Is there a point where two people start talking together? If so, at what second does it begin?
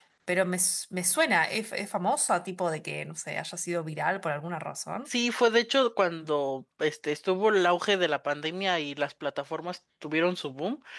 none

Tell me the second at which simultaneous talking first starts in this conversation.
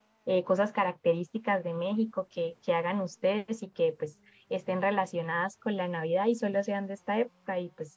none

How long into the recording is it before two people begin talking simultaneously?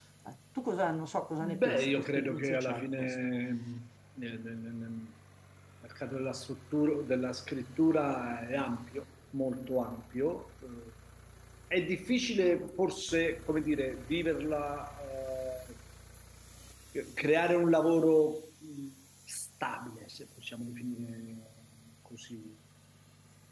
1 s

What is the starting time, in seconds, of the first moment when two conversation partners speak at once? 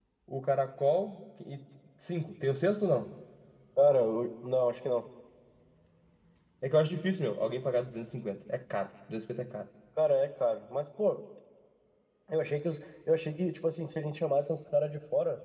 none

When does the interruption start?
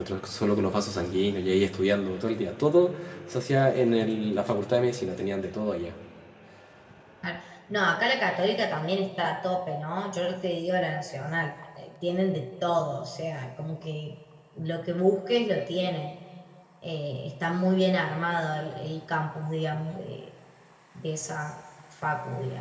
none

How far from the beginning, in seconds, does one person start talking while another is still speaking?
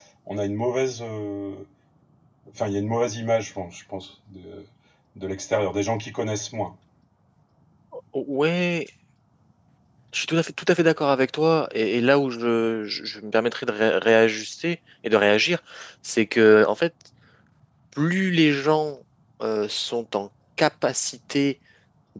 none

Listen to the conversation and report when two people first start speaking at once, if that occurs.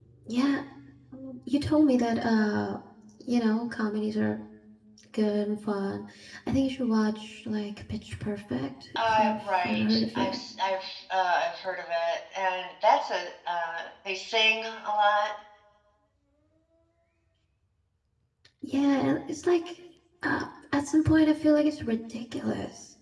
9 s

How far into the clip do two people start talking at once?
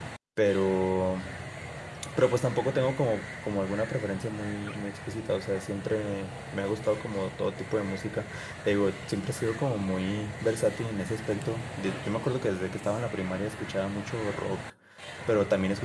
none

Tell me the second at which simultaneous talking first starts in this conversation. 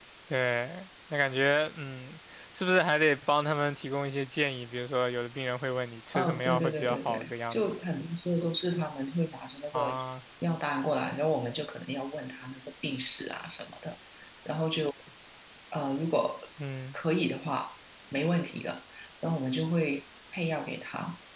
6 s

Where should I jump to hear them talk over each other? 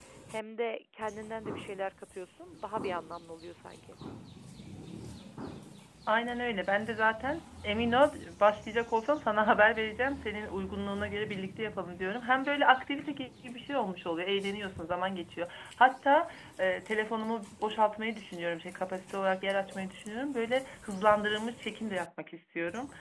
none

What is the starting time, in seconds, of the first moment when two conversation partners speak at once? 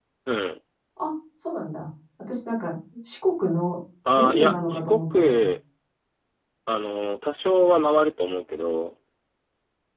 4 s

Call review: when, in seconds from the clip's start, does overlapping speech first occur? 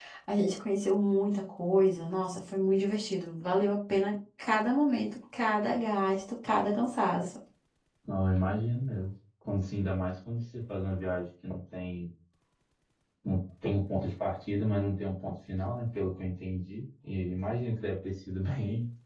none

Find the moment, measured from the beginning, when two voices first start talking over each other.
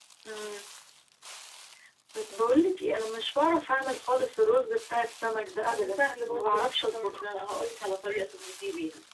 6 s

